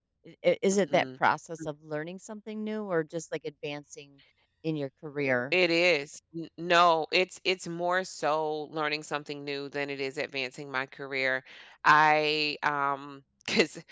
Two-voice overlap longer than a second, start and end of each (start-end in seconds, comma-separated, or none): none